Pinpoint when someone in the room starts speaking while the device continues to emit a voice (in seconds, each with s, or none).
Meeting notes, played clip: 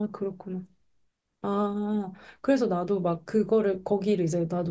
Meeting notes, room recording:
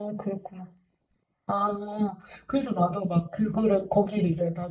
none